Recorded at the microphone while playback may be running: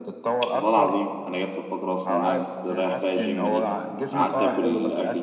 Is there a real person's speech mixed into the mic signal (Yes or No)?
Yes